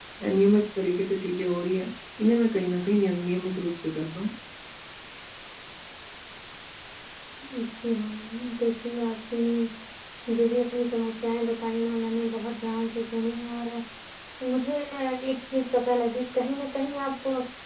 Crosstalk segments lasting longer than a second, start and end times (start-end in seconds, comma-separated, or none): none